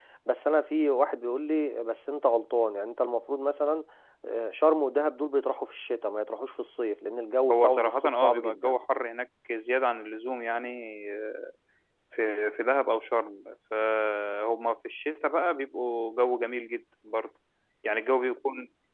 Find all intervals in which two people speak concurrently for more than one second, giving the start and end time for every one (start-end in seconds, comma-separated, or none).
7.5-8.8